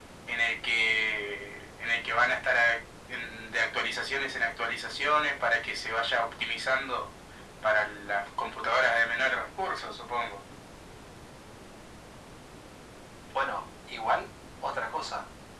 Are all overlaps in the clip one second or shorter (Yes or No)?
Yes